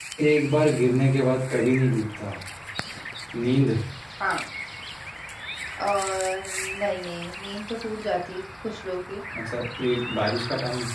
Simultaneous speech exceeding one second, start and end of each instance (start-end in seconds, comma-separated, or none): none